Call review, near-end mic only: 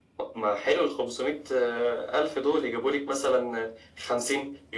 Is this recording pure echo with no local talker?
Yes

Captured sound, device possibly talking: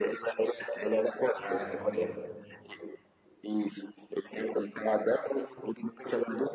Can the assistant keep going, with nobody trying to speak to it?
No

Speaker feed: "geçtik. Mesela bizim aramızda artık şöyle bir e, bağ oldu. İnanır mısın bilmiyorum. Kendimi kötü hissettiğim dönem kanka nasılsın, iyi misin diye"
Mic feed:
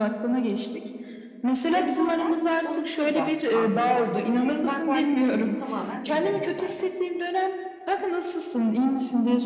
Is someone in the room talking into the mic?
Yes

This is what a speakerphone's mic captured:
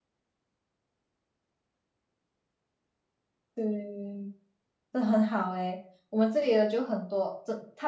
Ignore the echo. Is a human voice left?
Yes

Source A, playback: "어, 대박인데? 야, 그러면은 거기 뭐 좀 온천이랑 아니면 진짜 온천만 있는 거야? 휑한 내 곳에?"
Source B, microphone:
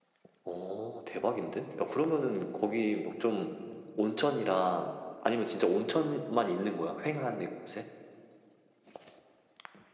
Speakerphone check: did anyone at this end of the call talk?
No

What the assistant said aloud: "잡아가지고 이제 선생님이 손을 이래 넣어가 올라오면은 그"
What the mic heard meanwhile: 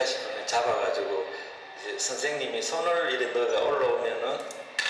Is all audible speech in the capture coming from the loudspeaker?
Yes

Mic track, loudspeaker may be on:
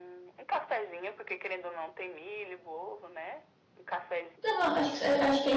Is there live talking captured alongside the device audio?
Yes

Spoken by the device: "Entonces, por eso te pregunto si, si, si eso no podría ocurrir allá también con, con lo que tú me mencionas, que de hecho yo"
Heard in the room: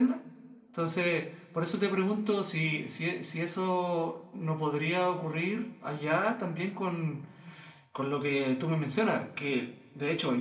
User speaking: No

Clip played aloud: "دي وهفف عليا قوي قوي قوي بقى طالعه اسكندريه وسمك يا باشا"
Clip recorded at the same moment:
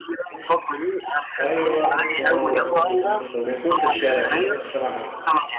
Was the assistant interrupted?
Yes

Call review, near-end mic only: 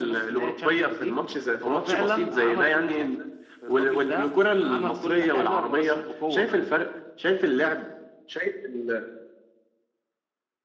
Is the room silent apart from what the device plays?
Yes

